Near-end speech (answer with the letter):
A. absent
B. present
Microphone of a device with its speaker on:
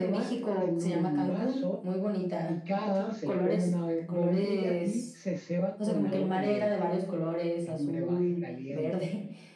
B